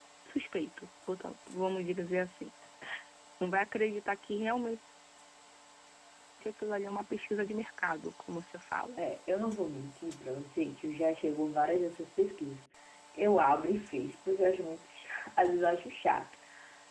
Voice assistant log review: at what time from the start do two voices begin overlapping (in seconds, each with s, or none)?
none